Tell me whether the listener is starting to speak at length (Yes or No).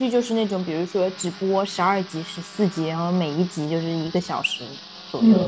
Yes